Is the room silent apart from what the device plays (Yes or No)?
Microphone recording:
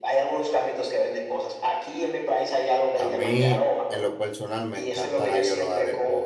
No